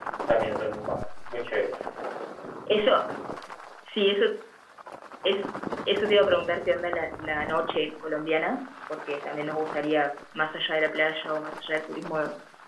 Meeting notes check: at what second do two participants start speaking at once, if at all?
none

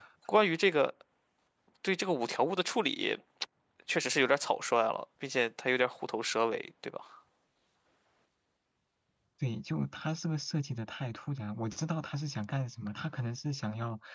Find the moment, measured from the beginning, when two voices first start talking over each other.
none

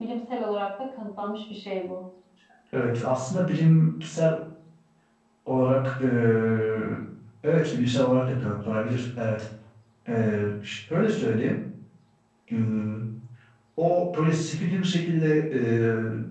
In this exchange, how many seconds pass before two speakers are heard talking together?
none

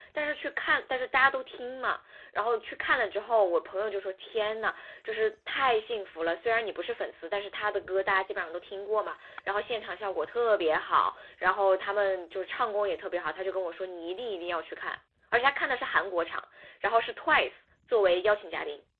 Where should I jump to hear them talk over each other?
none

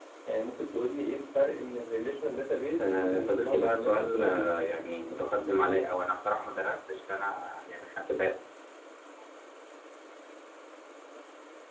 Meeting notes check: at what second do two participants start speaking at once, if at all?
2.8 s

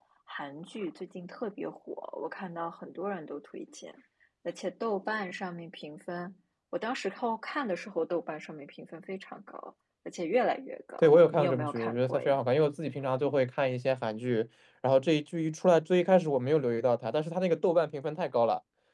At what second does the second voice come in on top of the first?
11.0 s

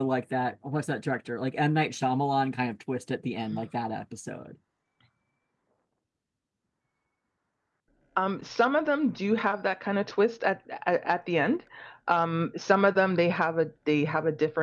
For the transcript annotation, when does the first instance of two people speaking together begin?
none

